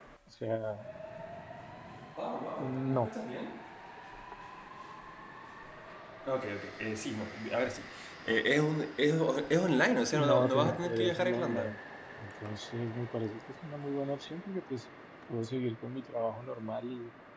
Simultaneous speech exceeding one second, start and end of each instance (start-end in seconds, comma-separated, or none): 10.1-11.8